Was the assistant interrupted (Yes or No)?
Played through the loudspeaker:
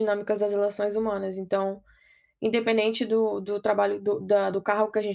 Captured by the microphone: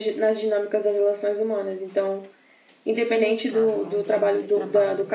Yes